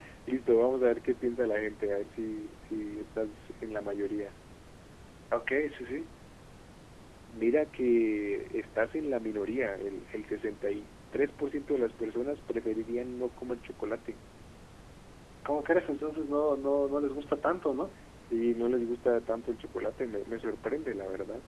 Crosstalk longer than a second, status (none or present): none